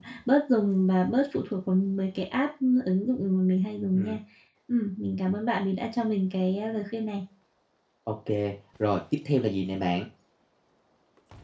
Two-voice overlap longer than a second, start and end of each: none

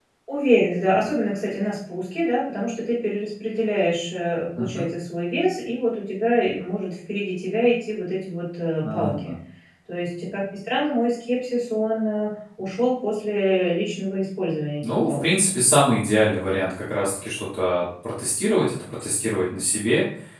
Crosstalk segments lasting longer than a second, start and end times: none

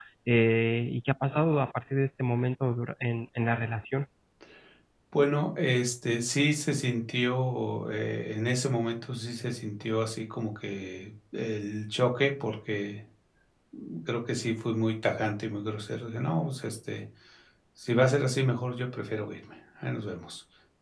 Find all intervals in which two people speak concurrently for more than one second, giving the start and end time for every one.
none

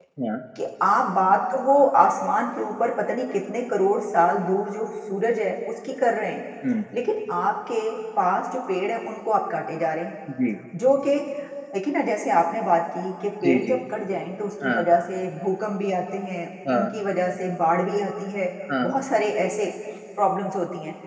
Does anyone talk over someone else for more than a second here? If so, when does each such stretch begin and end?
none

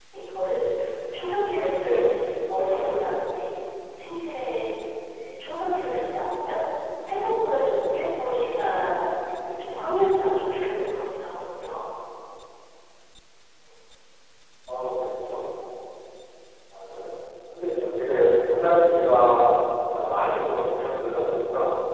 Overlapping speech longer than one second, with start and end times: none

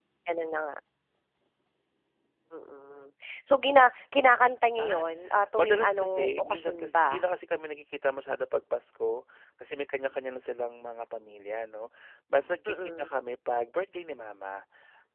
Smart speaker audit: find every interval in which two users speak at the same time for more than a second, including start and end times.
5.6-7.2

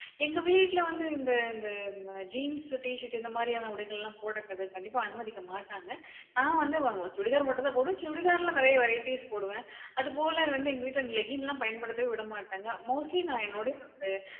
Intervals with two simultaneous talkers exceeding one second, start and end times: none

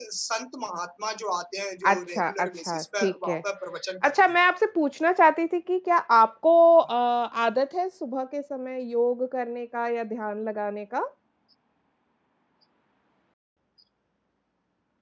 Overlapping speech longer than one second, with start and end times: 1.9-3.4

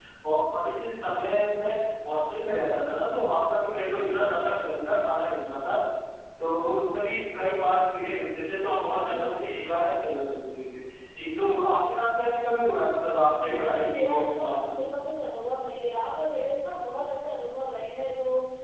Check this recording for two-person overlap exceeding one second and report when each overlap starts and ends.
13.4-14.8

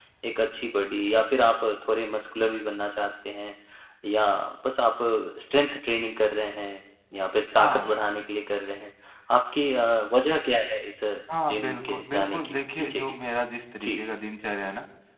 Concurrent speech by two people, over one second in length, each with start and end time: 11.5-13.2

